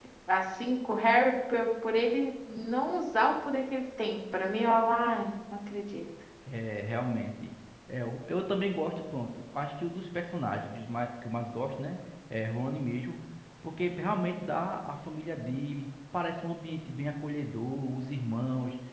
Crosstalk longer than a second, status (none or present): none